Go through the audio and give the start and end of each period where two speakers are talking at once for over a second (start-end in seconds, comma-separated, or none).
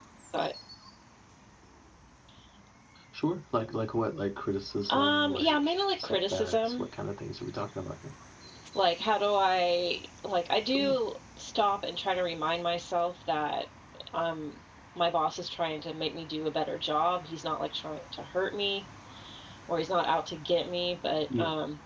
4.9-6.8